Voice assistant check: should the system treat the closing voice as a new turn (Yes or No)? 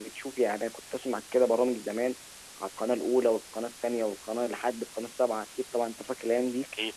No